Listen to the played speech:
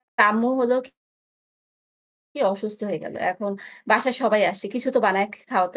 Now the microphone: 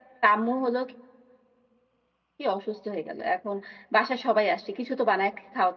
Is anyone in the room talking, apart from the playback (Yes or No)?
No